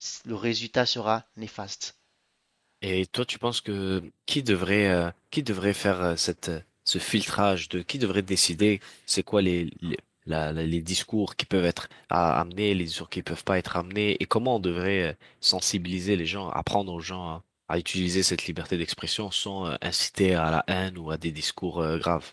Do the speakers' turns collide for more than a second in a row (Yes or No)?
No